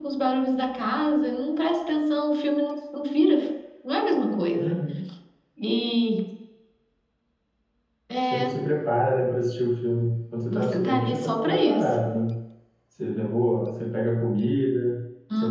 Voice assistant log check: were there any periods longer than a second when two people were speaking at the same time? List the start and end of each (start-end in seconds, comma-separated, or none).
10.5-12.0